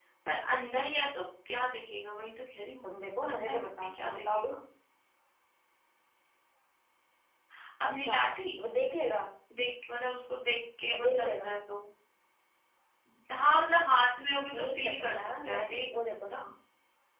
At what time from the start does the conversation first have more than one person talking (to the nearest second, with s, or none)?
3 s